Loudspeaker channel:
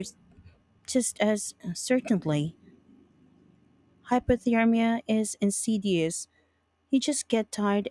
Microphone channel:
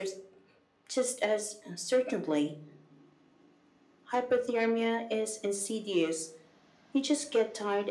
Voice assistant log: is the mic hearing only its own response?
Yes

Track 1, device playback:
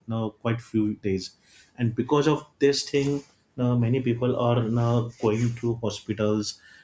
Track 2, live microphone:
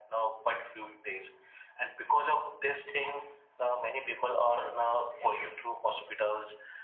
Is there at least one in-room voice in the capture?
No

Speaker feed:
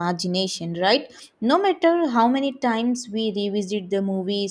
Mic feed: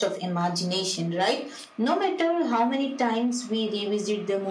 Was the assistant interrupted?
No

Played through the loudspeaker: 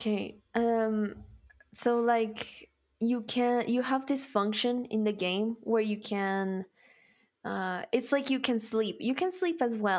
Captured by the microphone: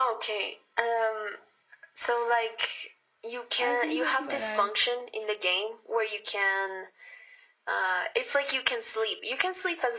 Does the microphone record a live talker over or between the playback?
Yes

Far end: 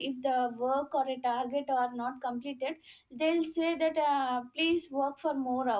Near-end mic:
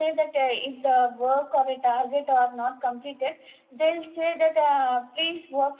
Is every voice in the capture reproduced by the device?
Yes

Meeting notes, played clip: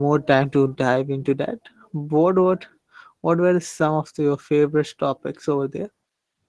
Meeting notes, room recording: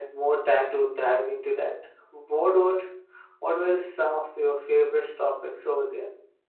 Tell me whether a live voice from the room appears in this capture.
No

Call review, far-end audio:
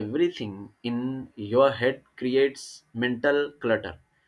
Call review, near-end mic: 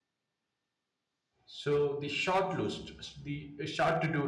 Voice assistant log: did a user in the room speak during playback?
Yes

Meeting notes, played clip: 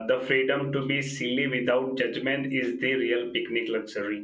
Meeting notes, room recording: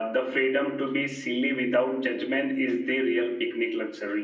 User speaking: No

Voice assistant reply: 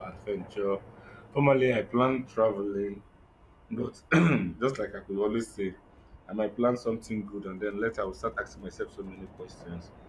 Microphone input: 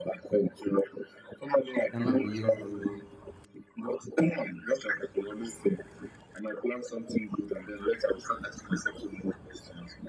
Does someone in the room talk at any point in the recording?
Yes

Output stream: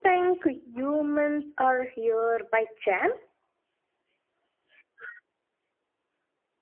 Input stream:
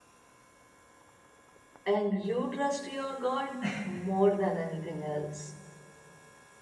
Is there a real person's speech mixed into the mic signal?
Yes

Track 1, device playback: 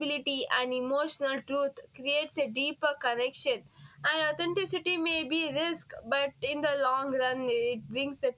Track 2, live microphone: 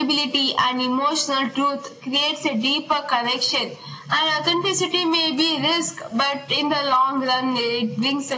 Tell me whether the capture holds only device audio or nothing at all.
Yes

